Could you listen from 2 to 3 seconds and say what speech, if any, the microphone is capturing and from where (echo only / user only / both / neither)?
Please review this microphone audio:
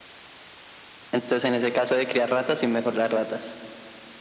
echo only